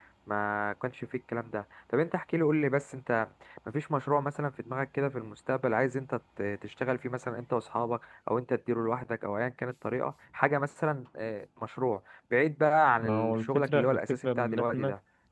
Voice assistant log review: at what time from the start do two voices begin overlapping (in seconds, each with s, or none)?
13.0 s